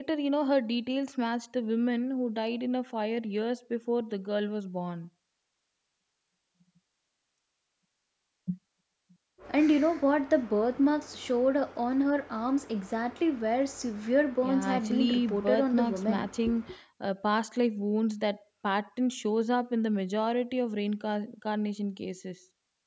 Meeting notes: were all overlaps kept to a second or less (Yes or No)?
No